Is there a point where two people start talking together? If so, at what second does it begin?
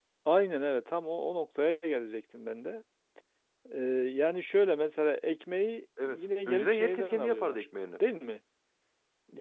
6 s

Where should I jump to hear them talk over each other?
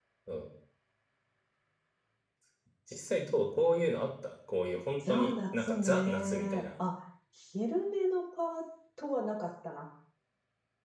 5 s

